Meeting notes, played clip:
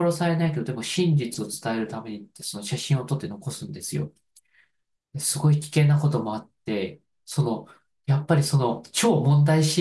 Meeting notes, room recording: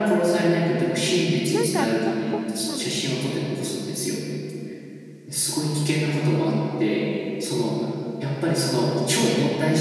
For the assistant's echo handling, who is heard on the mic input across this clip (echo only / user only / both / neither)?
both